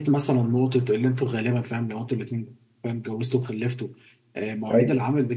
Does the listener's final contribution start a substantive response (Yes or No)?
No